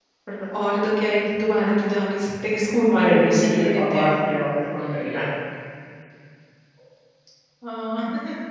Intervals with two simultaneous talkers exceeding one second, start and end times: 2.9-4.1

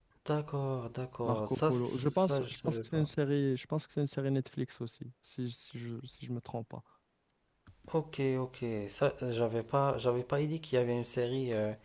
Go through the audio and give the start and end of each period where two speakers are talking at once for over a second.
1.2-3.1

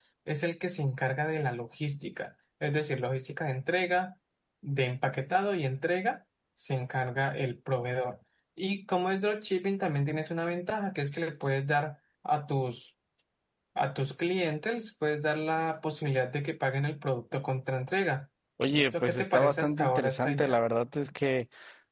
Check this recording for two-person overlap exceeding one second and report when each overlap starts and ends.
18.7-20.6

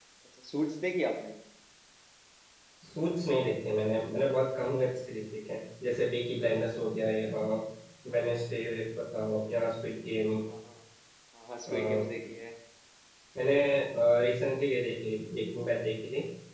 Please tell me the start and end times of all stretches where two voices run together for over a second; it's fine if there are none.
none

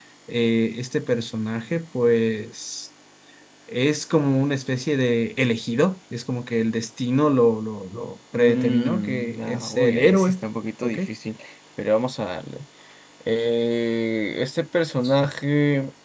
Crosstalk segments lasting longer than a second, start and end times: 8.4-10.3

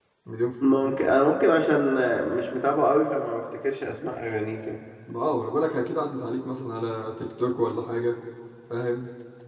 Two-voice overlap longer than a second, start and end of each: none

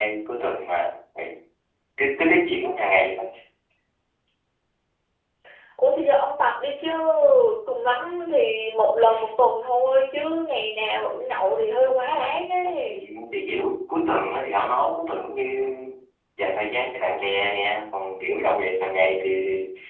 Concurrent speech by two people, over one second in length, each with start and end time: none

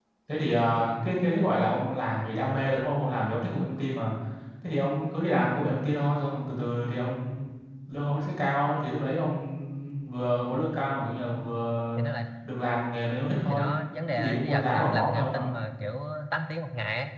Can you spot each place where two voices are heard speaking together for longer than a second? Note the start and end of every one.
14.1-15.4

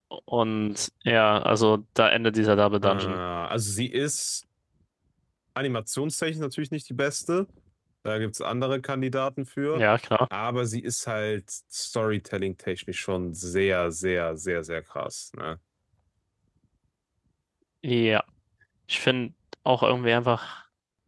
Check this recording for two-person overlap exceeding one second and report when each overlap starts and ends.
none

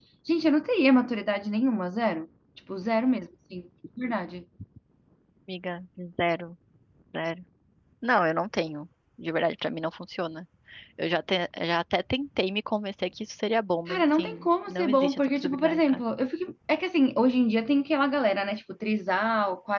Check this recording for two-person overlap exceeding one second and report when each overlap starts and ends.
13.9-16.0

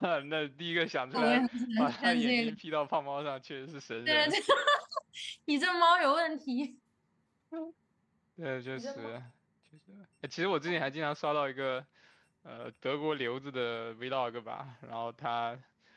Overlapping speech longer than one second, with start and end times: 1.2-2.6

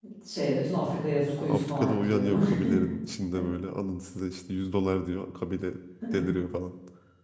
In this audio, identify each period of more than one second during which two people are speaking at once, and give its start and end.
1.5-2.8

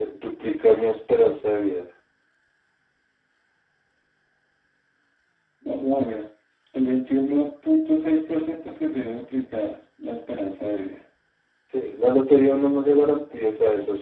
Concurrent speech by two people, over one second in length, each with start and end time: none

